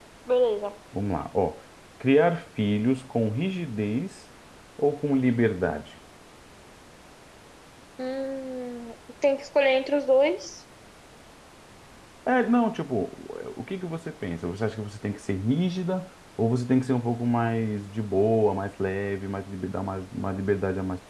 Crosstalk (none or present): none